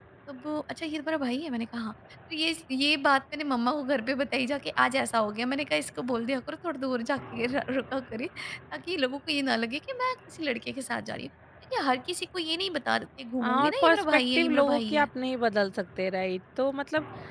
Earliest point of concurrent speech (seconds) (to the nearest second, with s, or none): 13 s